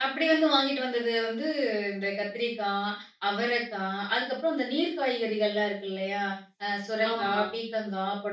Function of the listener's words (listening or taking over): listening